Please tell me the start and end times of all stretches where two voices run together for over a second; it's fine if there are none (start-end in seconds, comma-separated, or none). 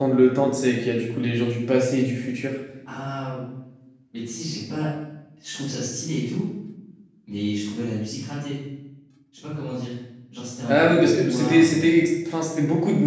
10.7-11.9